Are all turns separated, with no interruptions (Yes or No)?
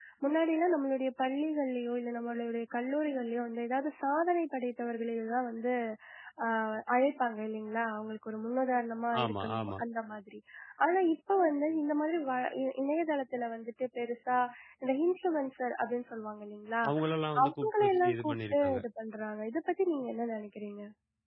No